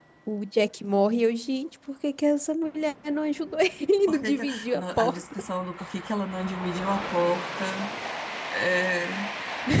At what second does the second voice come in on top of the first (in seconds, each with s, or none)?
4.1 s